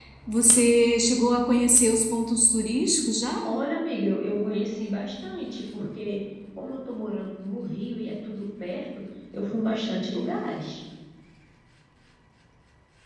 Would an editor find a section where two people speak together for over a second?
No

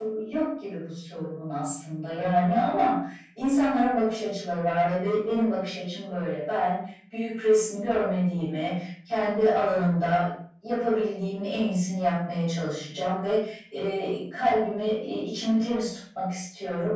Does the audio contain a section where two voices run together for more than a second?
No

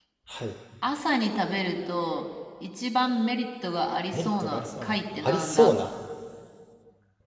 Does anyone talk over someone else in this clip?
Yes, from 4.1 s

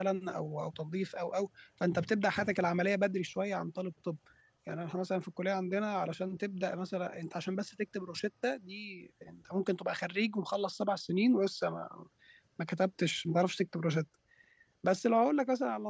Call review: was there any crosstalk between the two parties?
No

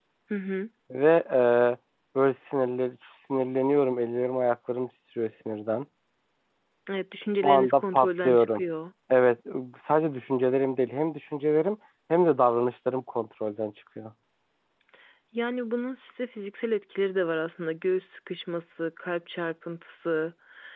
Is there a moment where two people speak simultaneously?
Yes, from 7.4 s

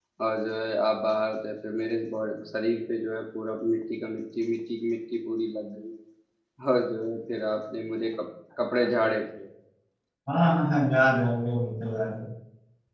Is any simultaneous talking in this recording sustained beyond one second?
No

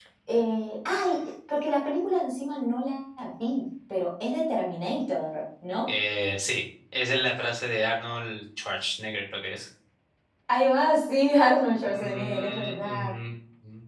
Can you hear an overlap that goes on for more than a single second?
Yes, from 11.8 s

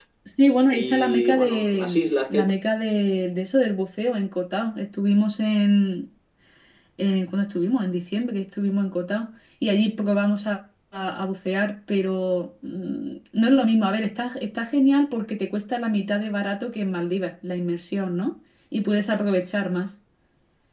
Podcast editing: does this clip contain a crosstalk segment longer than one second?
Yes, from 0.7 s

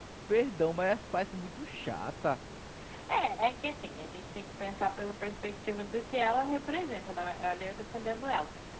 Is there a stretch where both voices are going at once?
No

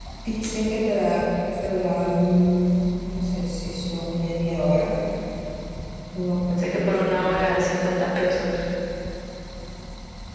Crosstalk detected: Yes, from 6.5 s

